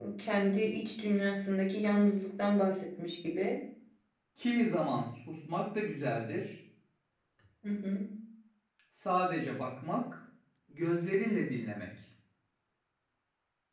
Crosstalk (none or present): none